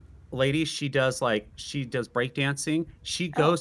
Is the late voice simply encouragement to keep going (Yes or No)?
Yes